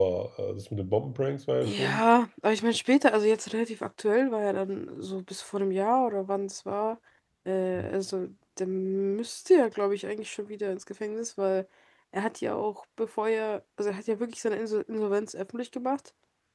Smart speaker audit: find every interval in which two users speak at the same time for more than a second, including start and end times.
none

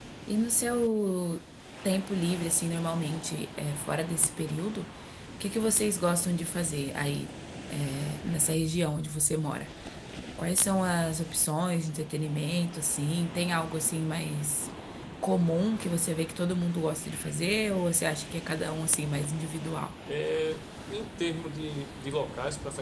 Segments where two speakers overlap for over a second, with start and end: none

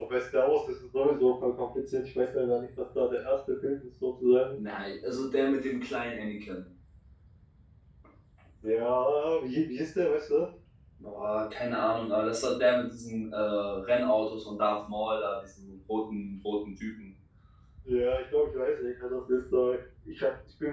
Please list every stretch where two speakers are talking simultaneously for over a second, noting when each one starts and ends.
none

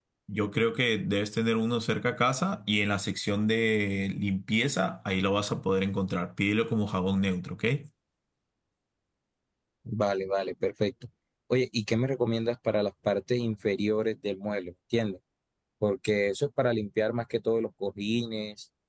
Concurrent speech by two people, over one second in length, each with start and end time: none

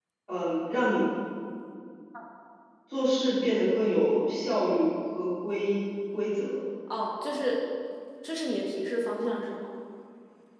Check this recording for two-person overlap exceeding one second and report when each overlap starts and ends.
none

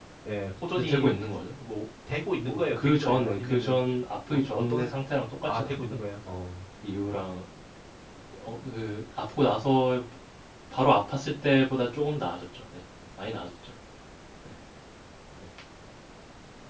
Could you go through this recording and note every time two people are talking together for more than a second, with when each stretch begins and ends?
2.5-3.7

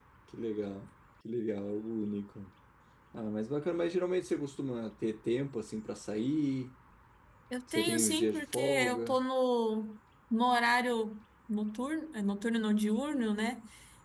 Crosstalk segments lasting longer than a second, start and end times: 7.7-9.2

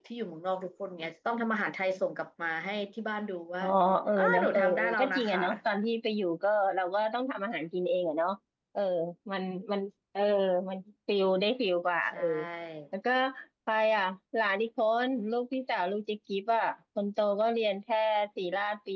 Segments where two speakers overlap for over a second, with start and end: 4.2-5.4

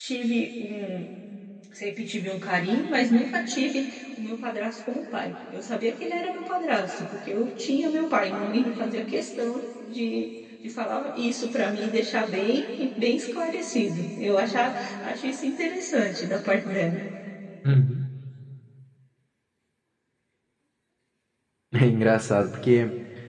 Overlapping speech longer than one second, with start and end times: none

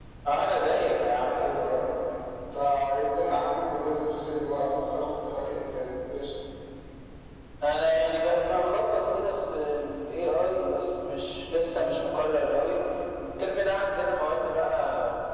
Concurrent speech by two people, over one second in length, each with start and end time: none

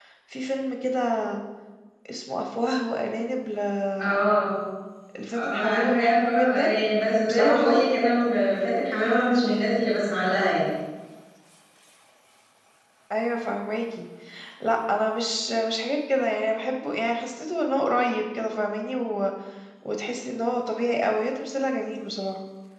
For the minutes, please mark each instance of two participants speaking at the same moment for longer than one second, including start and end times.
5.4-6.8

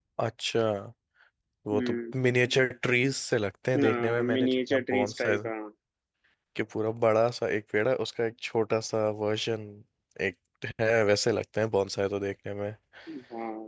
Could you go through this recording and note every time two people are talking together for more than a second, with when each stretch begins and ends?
3.8-5.4

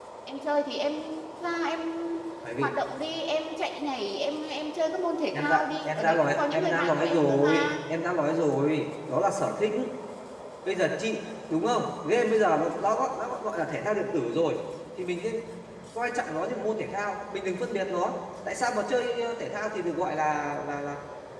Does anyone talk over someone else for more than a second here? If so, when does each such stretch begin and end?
5.3-7.7

